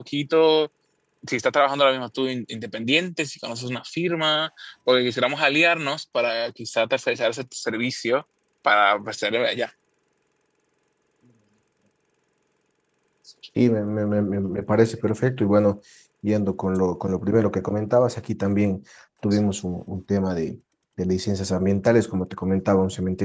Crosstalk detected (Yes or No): No